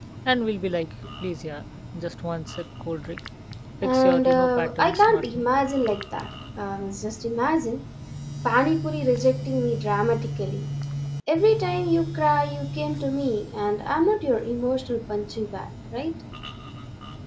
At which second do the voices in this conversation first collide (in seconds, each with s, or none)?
3.8 s